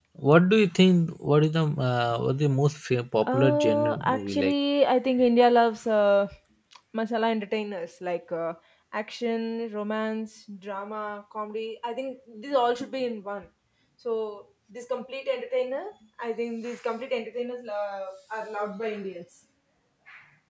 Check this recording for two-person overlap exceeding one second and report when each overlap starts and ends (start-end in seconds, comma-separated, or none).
3.2-4.5